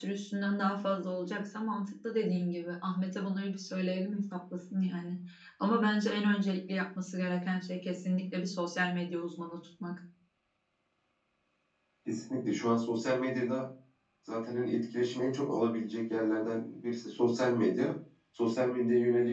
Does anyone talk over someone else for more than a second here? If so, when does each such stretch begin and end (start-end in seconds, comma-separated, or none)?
none